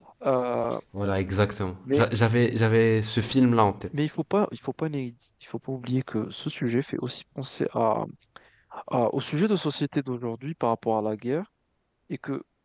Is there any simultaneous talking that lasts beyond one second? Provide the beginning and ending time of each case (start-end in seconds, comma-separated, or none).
none